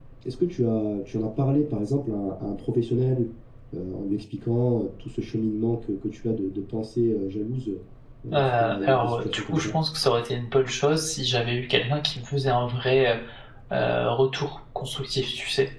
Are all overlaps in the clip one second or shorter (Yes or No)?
No